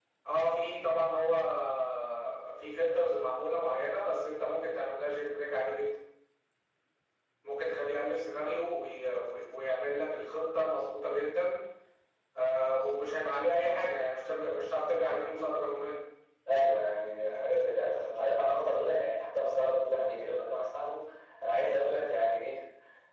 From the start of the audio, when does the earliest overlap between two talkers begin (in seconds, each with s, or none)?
none